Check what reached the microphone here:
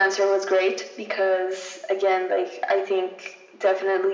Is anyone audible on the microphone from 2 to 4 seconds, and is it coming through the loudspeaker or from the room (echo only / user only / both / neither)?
echo only